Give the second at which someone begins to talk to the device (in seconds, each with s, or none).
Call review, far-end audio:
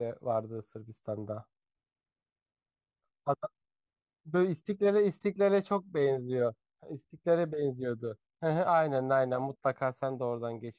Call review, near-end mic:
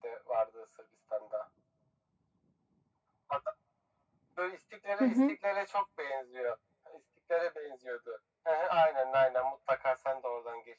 5.0 s